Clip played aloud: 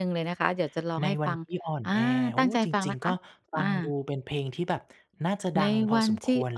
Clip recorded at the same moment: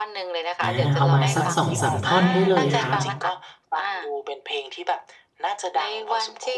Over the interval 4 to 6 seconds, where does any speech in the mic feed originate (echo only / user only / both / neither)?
echo only